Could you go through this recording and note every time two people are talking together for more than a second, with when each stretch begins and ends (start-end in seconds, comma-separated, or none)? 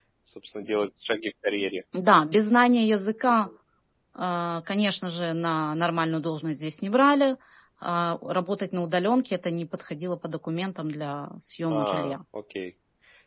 none